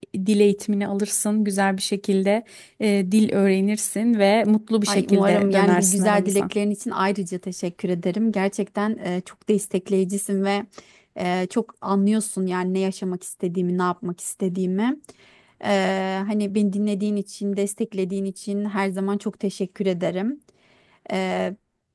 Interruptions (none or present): present